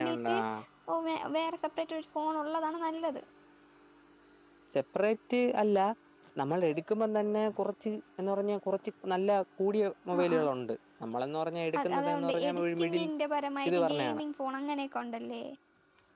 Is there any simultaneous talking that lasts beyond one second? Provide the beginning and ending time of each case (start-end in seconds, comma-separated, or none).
11.8-13.0